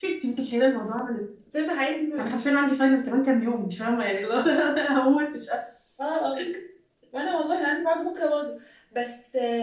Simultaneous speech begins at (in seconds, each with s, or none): none